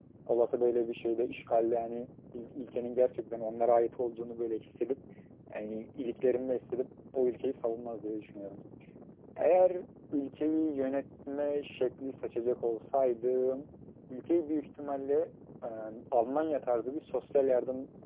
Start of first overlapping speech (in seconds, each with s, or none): none